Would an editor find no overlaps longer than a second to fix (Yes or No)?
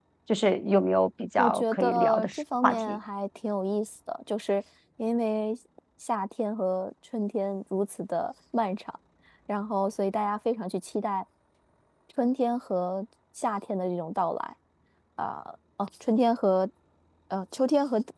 No